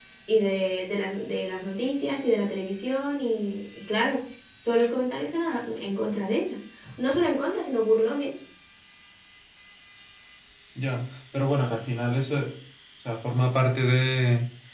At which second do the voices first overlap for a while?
none

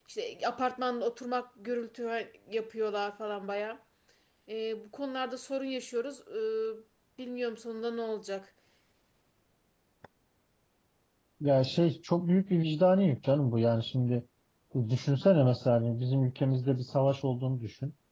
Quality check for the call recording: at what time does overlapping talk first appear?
none

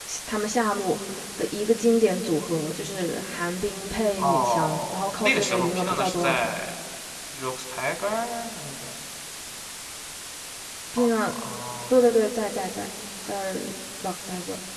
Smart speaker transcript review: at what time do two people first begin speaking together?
4.2 s

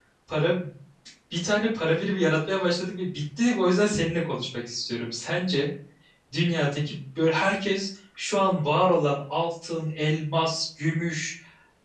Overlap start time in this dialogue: none

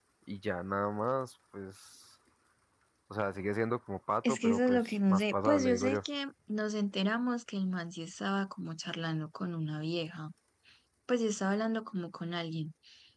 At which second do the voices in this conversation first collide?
4.2 s

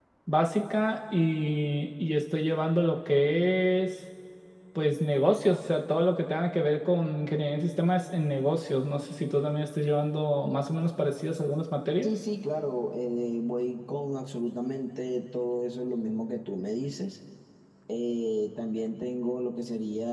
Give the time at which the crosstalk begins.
none

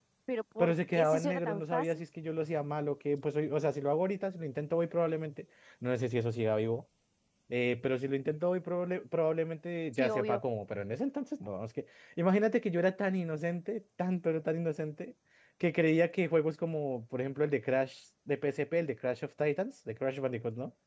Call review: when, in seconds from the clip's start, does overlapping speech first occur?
0.6 s

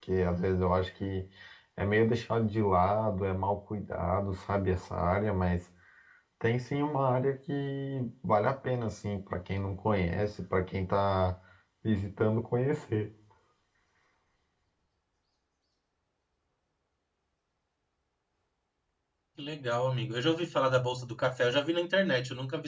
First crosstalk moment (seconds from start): none

